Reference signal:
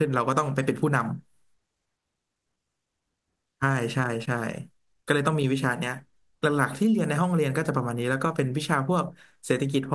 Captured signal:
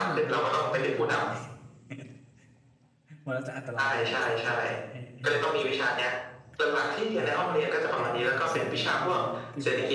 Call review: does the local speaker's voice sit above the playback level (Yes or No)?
No